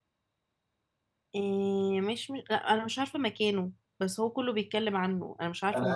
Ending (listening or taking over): taking over